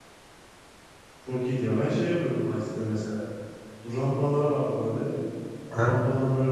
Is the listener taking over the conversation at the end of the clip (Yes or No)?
No